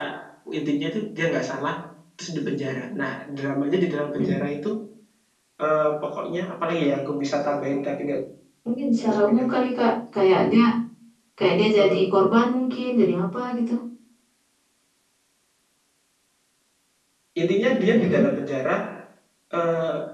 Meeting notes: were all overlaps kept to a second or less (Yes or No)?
Yes